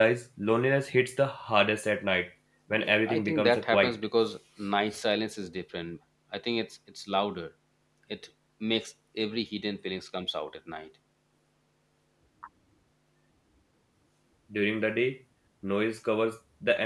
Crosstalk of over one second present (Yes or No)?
Yes